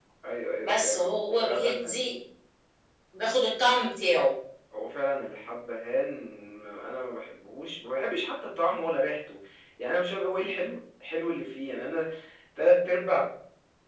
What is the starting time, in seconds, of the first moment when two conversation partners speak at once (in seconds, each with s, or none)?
0.6 s